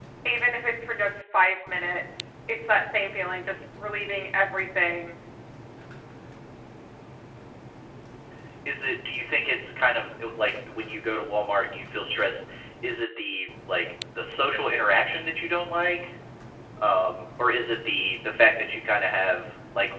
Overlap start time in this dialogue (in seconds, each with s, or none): none